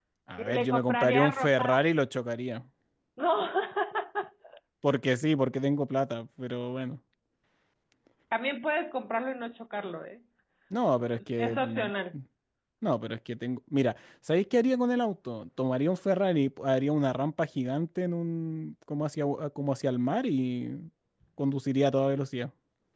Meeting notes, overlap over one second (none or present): present